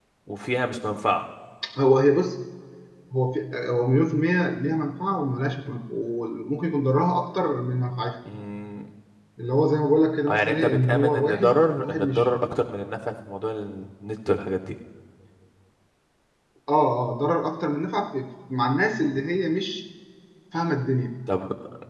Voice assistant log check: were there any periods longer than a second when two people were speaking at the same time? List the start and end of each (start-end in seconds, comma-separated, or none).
10.3-12.2